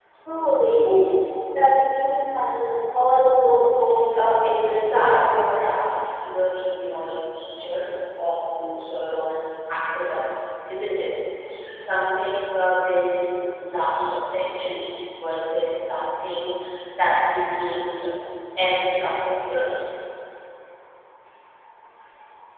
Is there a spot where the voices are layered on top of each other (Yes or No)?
Yes